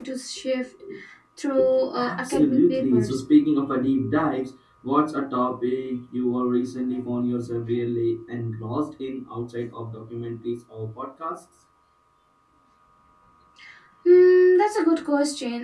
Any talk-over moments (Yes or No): Yes